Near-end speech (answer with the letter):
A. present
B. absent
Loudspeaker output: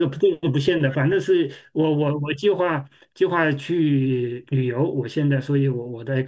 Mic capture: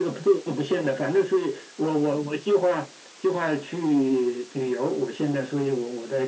B